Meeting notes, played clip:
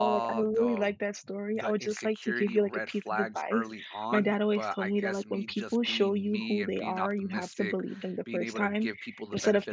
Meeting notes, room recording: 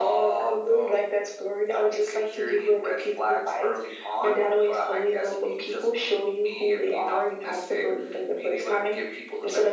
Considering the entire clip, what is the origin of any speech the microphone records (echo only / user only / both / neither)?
echo only